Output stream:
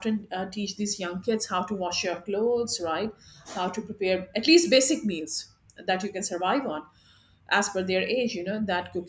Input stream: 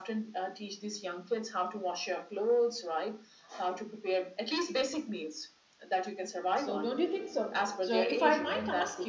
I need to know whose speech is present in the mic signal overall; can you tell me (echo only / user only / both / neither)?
both